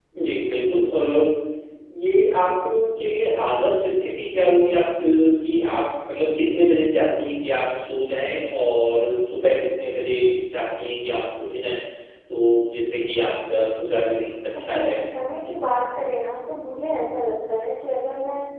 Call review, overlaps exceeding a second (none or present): none